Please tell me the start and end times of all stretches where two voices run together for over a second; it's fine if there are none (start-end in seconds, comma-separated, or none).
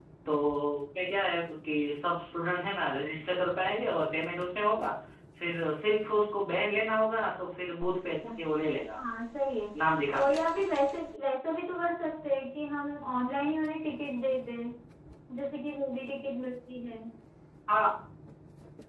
none